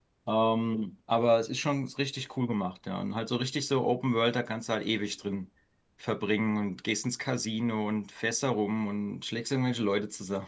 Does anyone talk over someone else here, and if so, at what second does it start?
none

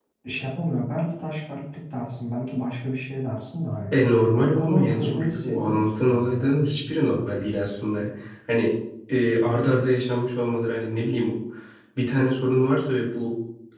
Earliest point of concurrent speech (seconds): 4.4 s

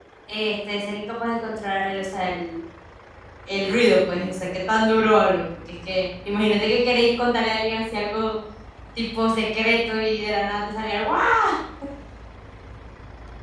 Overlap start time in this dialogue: none

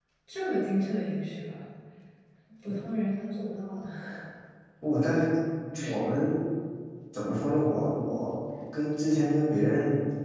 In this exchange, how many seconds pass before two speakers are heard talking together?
none

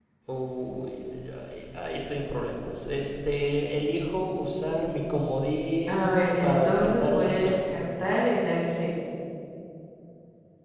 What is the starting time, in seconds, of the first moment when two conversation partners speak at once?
5.9 s

